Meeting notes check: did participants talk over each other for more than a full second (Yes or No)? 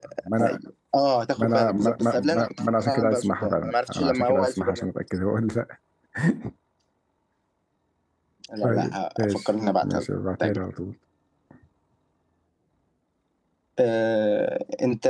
Yes